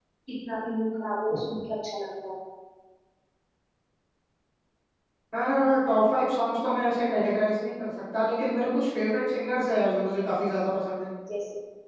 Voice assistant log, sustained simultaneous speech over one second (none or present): none